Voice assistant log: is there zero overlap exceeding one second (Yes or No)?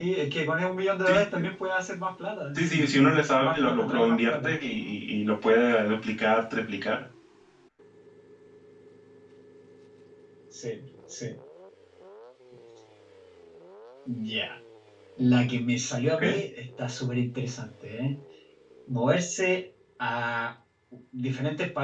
No